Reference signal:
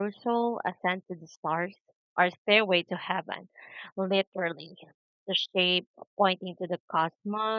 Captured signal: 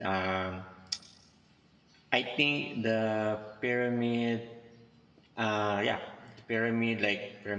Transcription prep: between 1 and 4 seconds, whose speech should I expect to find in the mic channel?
user only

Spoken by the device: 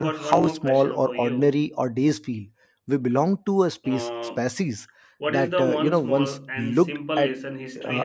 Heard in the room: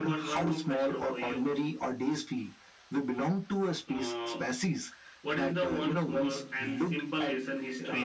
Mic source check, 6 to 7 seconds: echo only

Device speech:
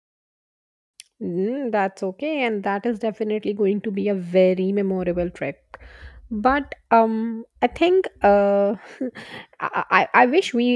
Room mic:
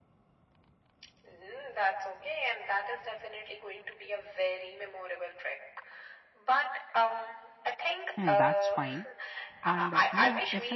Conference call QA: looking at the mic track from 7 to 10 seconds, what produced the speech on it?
both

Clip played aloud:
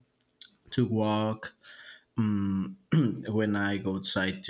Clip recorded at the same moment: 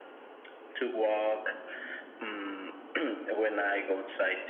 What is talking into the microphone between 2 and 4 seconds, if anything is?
echo only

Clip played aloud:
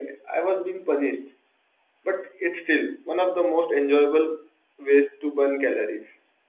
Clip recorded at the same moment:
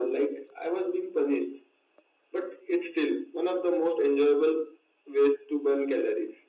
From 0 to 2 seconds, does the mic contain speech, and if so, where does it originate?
echo only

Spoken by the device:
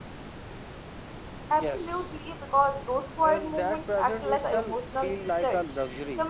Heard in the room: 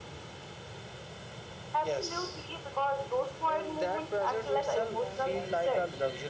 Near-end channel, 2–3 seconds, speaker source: echo only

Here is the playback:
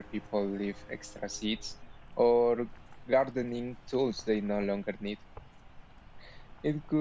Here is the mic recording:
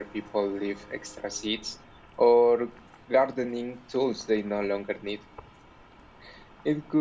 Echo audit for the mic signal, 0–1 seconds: echo only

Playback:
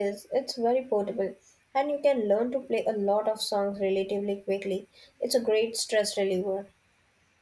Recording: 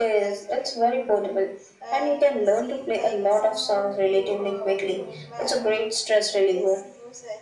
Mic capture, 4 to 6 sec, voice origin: both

